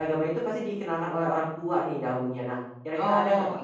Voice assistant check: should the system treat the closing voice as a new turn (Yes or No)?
Yes